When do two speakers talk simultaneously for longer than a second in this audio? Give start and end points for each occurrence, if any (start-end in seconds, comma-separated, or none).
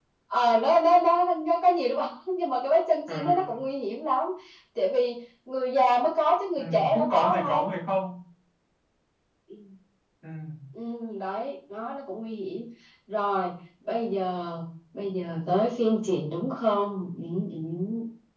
6.6-7.8